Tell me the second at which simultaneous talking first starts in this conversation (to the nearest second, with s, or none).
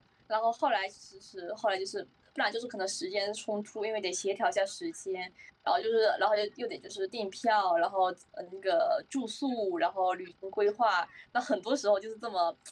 none